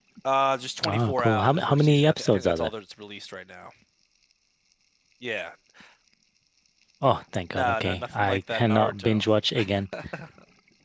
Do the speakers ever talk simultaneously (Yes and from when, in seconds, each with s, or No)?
Yes, from 0.9 s